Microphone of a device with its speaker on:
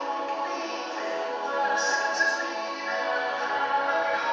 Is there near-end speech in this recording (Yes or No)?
No